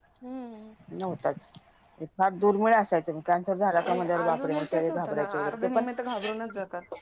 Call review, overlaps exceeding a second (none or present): present